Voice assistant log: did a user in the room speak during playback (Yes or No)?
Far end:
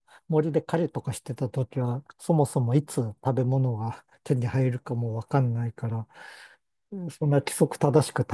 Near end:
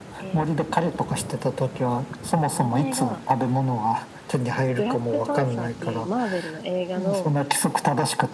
Yes